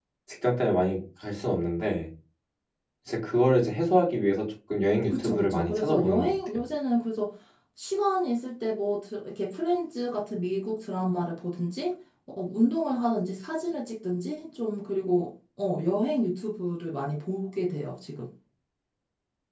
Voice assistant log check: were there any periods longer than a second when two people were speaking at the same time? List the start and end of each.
5.1-6.6

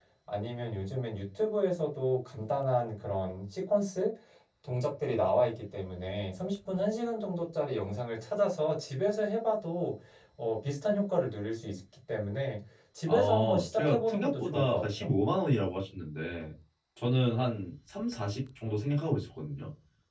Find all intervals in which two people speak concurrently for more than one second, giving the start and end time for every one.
13.1-15.1

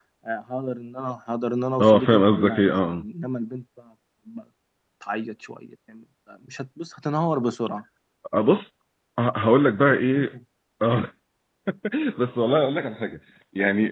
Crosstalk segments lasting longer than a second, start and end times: 1.8-3.0

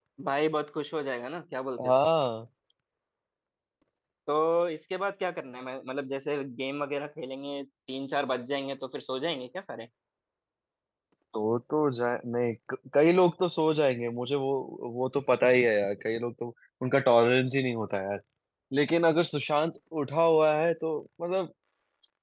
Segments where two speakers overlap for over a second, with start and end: none

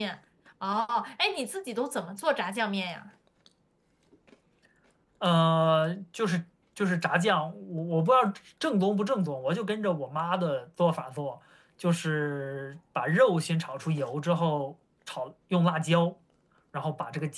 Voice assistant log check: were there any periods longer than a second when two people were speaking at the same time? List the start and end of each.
none

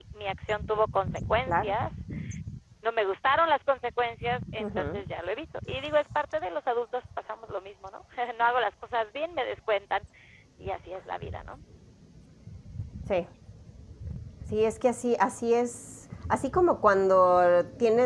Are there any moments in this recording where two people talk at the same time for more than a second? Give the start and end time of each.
none

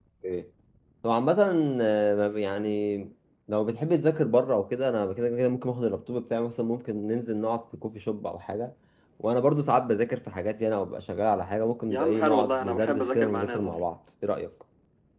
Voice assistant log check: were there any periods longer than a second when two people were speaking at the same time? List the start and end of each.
11.9-13.8

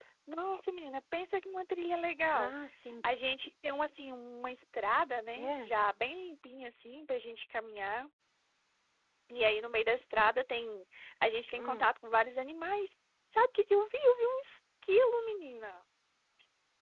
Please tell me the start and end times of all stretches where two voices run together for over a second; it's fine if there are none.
none

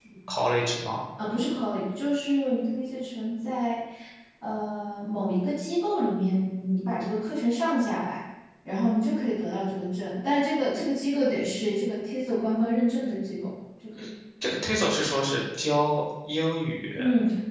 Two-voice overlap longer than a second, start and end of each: none

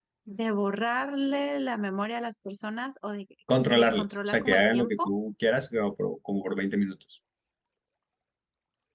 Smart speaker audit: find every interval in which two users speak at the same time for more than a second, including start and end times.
3.7-5.1

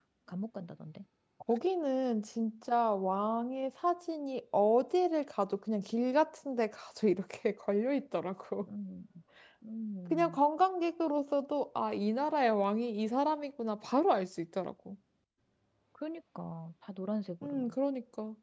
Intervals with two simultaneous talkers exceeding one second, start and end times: none

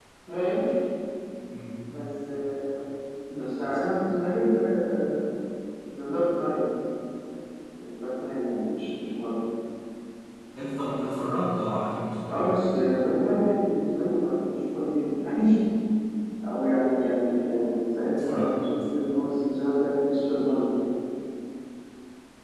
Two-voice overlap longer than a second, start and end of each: none

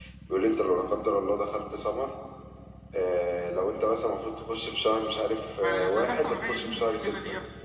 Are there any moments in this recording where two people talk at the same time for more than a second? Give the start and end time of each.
5.6-7.1

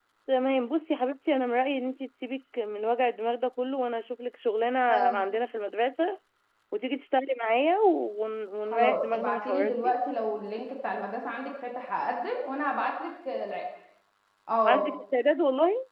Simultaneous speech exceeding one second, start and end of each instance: 8.7-10.0

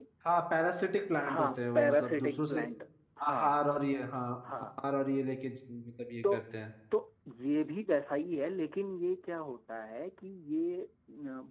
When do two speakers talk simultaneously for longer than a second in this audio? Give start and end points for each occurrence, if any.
1.3-2.6

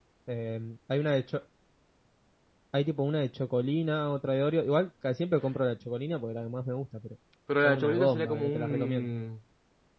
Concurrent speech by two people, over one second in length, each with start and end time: 7.6-9.1

